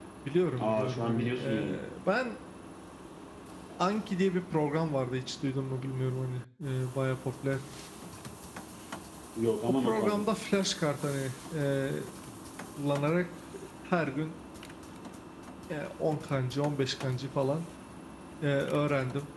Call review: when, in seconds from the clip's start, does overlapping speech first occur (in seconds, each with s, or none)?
0.6 s